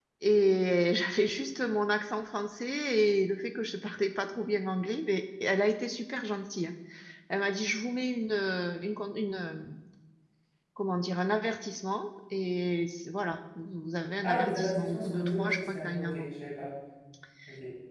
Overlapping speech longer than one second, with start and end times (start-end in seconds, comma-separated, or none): 14.2-16.2